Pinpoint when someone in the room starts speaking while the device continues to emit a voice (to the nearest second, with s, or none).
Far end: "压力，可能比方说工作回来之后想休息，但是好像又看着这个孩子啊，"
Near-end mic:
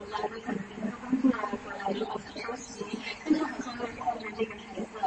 none